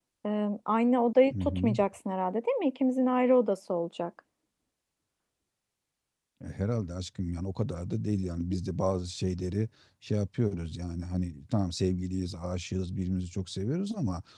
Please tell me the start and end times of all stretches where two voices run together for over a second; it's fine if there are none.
none

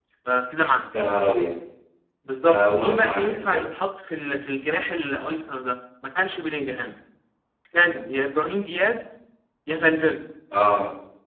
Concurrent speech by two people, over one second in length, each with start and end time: 2.4-3.6

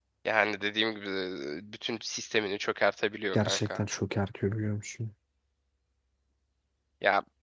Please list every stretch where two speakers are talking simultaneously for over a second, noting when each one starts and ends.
none

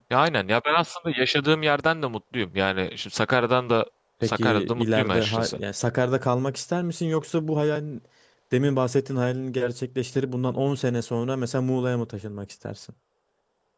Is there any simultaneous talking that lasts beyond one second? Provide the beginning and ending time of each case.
4.2-5.6

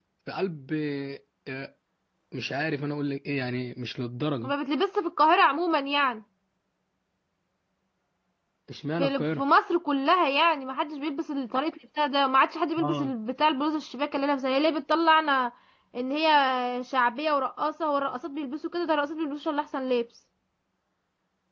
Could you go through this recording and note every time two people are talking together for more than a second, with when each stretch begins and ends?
none

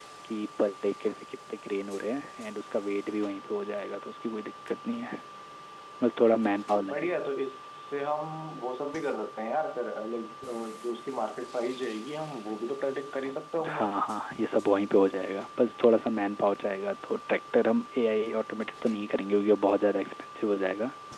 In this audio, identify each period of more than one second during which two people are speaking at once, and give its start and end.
none

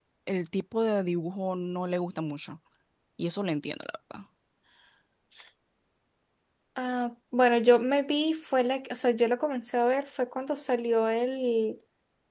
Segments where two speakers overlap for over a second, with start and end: none

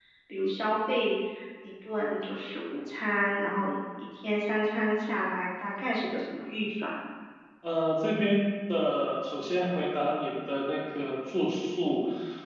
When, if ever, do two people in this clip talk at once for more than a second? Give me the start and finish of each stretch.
none

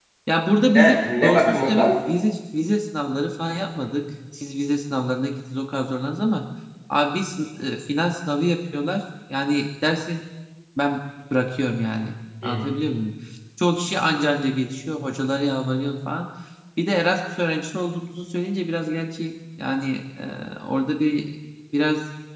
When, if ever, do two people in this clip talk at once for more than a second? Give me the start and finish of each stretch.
0.8-2.0

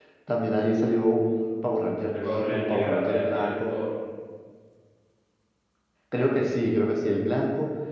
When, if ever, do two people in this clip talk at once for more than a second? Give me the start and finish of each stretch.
2.1-3.7

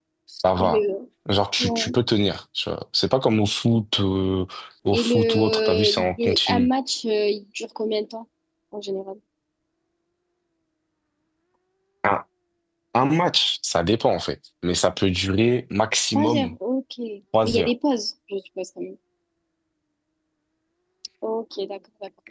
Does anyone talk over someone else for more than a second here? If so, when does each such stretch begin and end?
4.9-6.7

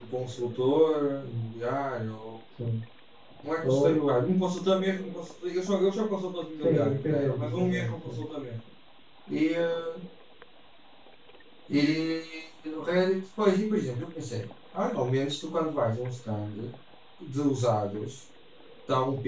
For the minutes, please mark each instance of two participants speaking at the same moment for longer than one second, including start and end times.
6.6-8.2

